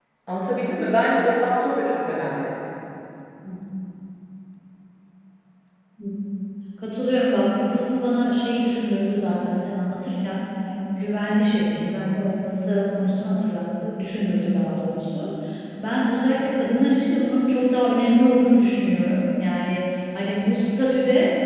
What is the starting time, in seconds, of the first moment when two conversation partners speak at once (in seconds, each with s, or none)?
none